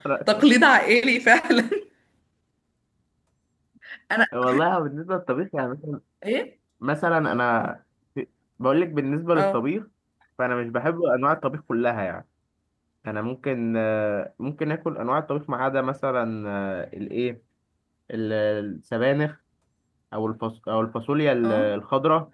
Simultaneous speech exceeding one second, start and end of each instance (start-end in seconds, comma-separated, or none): none